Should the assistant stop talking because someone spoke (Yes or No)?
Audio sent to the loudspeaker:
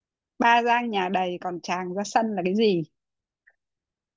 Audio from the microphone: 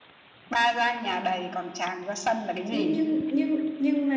Yes